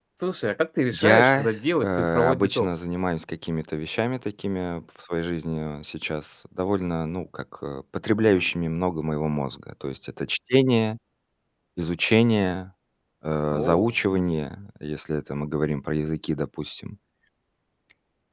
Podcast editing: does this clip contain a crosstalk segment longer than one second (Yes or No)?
Yes